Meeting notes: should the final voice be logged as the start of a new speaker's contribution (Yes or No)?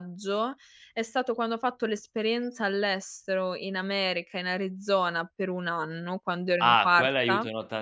Yes